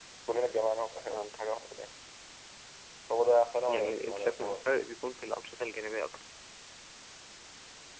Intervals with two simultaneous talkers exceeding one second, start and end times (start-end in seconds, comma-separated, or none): 3.7-4.9